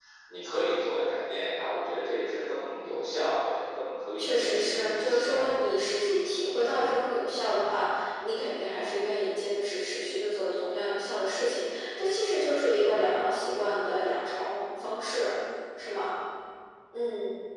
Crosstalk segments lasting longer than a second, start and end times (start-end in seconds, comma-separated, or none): 4.2-5.4